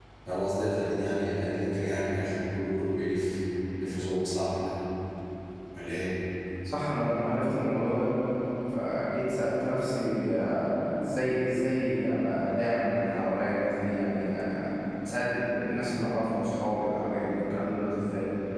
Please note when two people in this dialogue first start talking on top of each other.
none

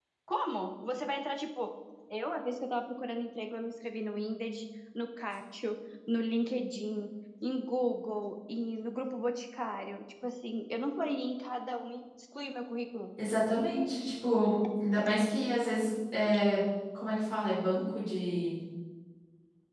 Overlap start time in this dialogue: none

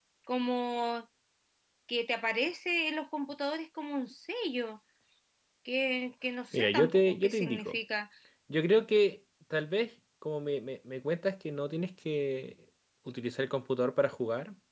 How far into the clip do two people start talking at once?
6.5 s

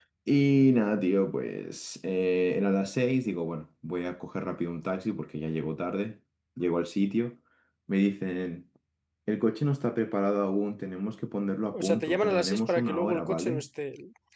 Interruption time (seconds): 11.7 s

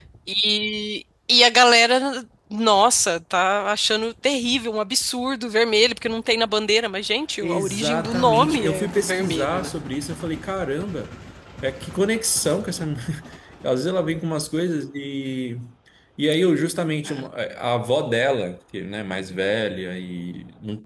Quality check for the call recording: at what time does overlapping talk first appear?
7.4 s

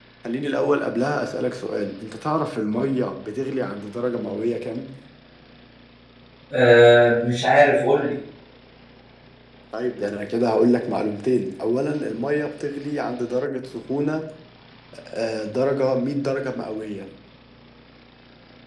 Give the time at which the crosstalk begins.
none

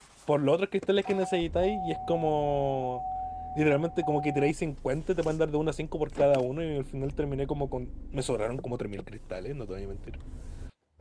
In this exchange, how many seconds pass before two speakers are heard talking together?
none

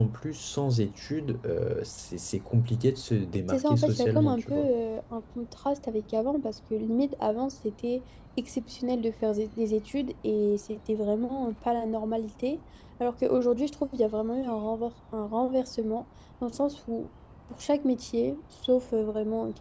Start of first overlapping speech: 3.5 s

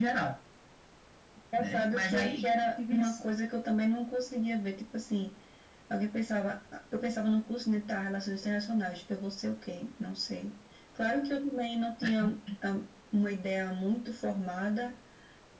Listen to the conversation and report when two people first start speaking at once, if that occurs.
1.6 s

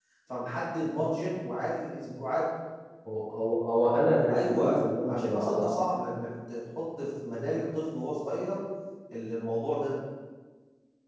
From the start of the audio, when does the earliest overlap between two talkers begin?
4.3 s

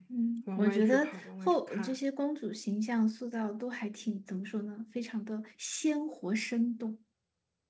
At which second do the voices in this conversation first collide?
0.6 s

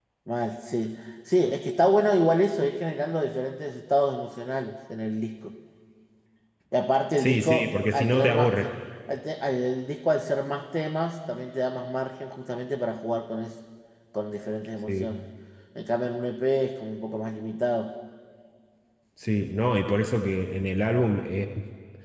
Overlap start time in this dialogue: 7.2 s

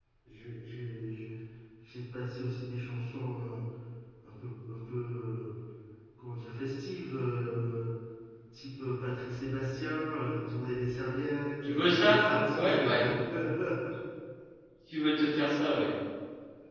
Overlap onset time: 11.6 s

